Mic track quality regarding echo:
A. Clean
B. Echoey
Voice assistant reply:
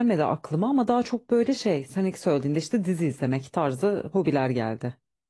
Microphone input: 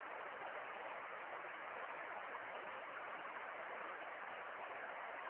A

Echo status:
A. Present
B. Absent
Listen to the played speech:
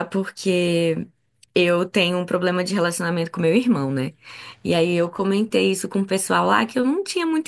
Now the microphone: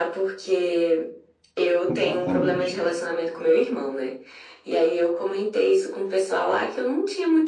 A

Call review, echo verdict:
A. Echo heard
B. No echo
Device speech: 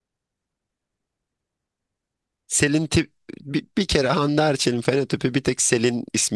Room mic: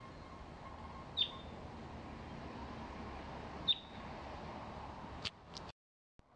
B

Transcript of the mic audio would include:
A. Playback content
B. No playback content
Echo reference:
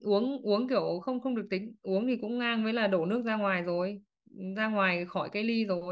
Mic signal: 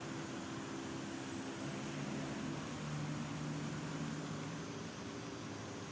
B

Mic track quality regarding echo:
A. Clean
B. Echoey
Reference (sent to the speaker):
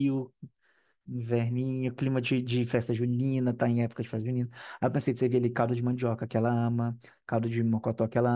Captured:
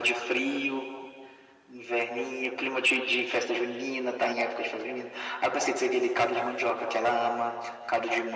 B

